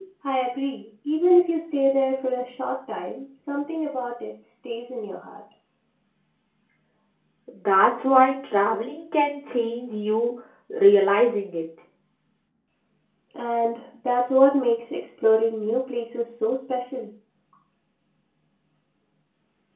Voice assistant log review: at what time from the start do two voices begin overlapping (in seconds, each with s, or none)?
none